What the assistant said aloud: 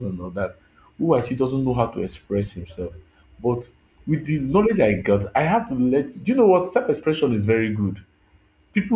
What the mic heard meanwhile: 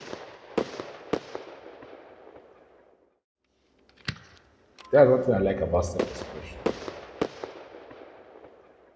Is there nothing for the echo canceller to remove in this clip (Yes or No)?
Yes